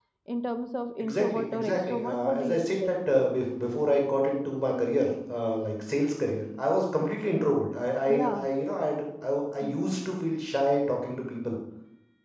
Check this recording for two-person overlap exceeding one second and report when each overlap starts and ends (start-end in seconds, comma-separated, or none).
1.0-3.0